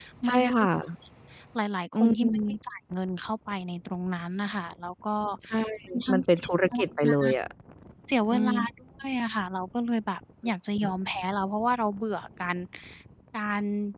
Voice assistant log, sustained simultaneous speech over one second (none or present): present